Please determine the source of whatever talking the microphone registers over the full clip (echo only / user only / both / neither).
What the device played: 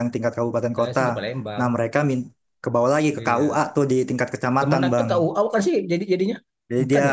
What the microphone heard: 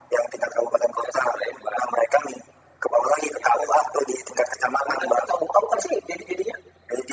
echo only